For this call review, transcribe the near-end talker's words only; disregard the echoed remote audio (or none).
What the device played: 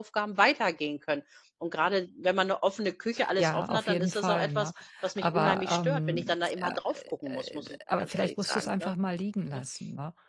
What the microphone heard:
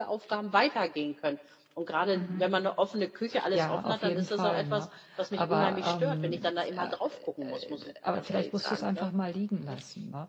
mhm.